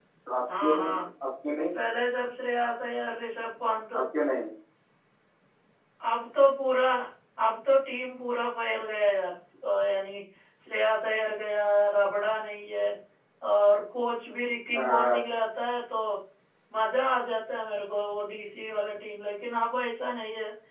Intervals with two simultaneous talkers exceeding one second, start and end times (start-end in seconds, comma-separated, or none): none